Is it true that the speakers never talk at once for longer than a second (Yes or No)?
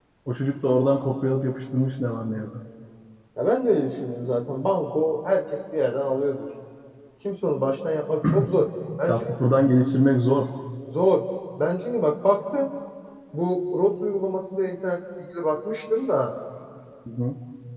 Yes